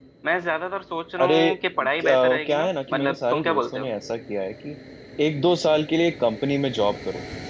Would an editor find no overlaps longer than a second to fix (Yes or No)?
No